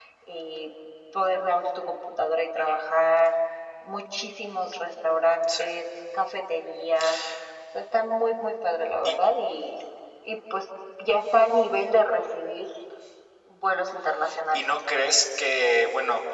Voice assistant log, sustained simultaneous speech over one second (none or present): none